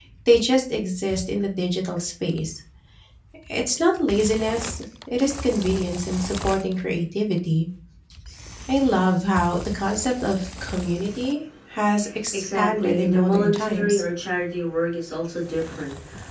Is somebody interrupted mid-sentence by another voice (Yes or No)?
Yes